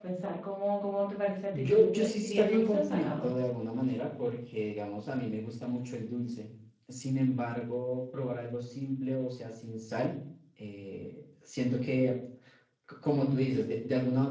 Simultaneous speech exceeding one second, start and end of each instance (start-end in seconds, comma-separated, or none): 1.5-3.3